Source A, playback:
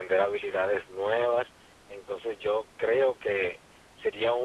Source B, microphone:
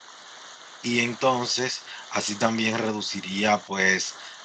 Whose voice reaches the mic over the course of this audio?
user only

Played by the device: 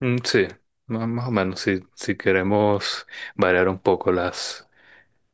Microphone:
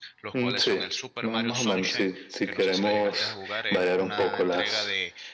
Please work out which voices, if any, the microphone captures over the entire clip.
both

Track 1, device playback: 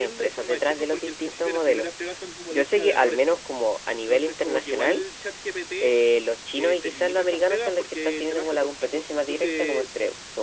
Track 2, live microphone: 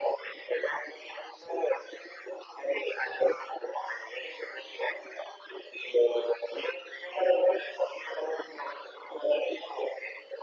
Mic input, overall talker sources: echo only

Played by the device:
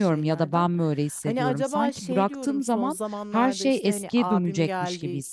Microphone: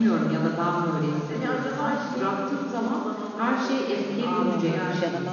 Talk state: both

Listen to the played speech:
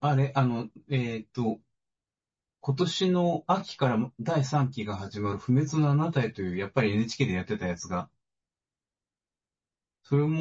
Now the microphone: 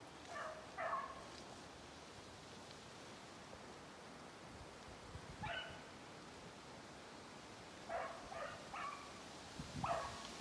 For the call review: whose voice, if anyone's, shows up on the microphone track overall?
neither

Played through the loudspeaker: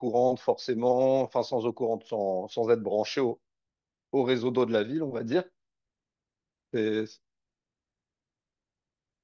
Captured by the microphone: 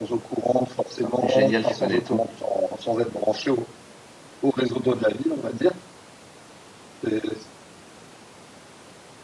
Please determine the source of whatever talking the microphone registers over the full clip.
both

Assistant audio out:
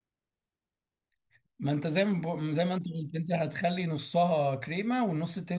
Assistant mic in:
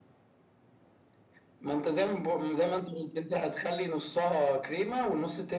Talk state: echo only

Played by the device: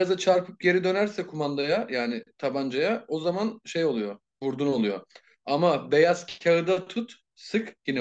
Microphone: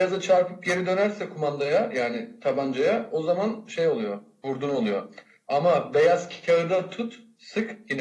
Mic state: echo only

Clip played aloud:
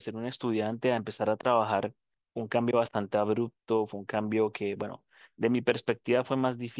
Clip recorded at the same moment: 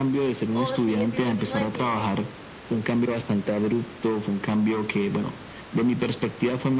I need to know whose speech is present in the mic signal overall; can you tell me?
both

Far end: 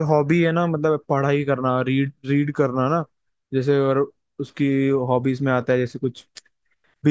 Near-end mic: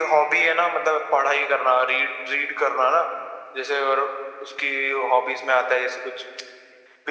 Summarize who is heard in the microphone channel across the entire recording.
echo only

